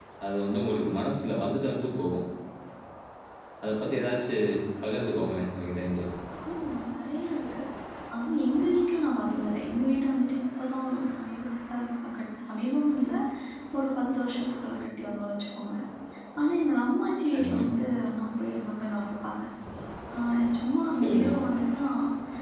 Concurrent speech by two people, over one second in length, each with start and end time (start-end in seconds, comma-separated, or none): none